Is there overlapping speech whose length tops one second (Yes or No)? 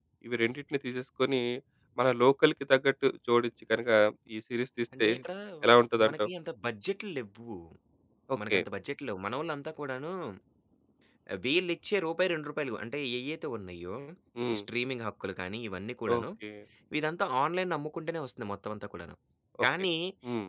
No